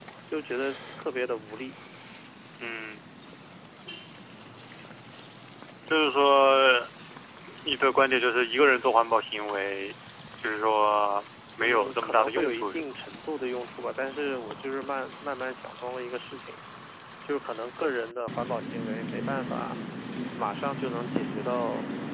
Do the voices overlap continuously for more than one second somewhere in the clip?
Yes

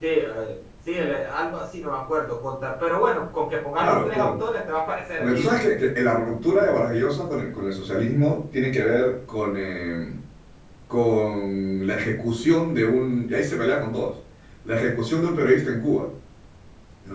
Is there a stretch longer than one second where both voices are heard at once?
No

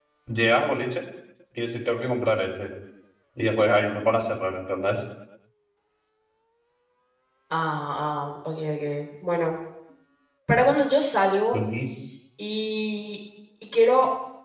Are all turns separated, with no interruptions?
Yes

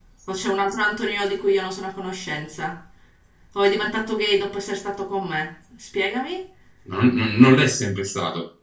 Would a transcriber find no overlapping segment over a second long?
Yes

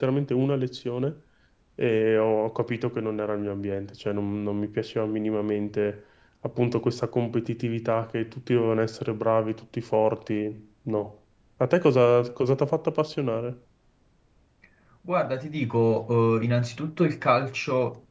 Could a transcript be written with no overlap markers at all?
Yes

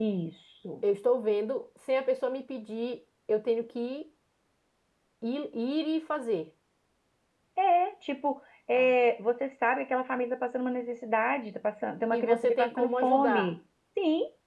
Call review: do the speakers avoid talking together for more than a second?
No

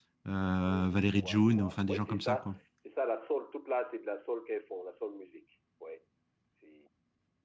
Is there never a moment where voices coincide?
No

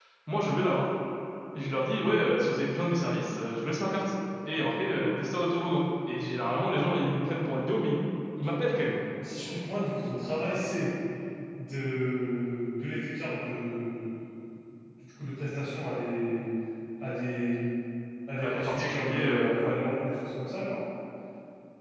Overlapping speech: Yes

